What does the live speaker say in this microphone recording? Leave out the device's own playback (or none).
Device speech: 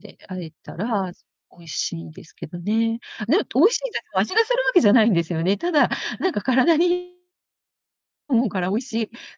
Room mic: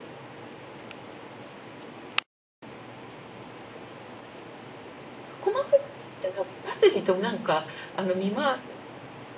細かく切ったら、パセリとなんか、あの、見ま